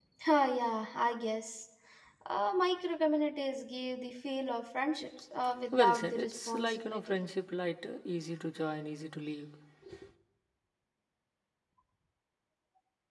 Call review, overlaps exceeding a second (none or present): present